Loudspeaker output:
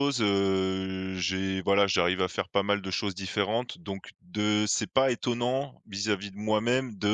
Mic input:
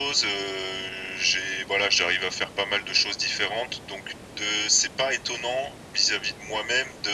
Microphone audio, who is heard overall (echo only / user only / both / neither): echo only